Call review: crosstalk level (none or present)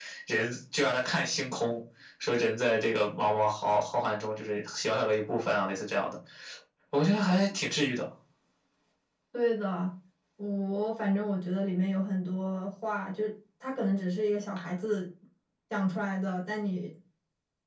none